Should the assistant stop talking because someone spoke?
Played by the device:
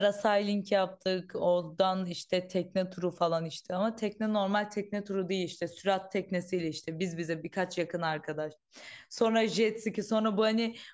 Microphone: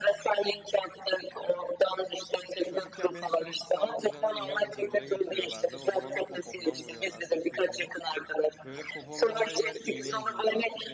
Yes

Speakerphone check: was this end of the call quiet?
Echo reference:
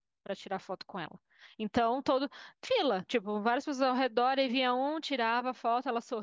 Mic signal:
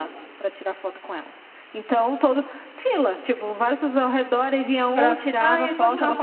No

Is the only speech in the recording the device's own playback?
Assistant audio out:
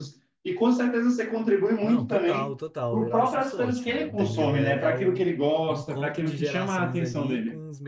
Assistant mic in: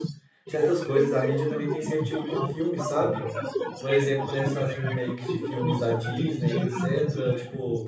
No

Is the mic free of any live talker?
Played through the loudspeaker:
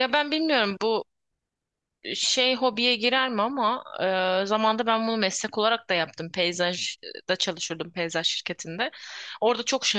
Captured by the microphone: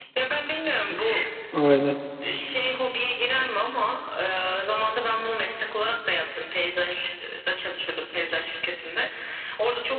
No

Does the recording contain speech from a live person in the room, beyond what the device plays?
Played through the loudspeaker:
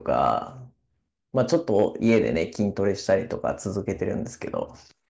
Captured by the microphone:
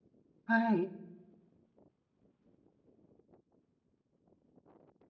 Yes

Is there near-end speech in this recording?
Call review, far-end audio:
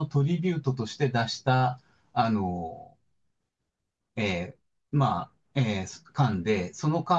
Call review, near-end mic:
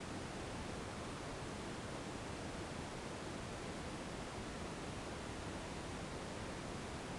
No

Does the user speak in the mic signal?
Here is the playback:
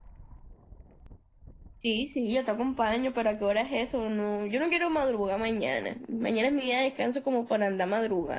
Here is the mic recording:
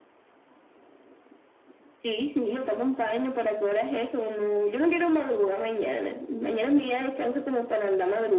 No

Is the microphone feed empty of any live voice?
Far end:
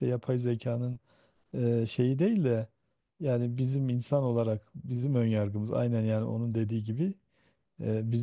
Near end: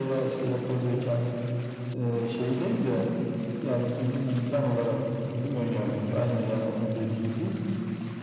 Yes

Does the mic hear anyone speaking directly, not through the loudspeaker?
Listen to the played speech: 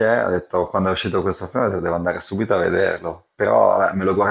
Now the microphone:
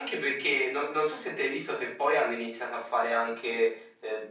Yes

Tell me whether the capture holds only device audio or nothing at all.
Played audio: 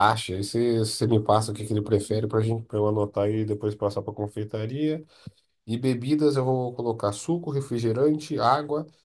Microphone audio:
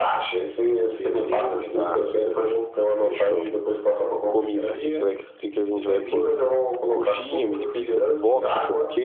No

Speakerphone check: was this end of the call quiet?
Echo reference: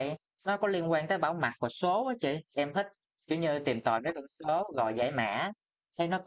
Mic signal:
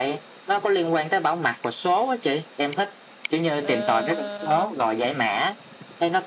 No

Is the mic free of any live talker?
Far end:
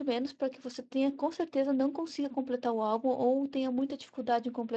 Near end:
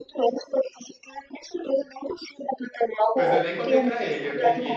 No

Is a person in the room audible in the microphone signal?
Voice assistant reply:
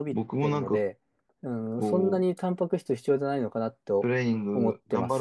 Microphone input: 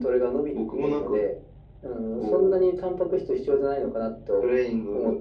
No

